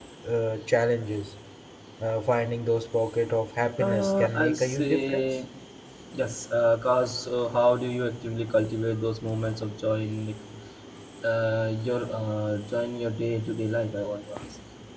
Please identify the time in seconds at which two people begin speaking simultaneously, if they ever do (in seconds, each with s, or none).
3.8 s